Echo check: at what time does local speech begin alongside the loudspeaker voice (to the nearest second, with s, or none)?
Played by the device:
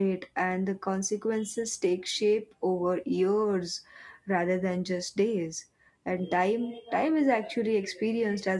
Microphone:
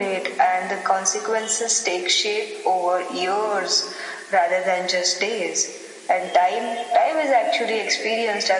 none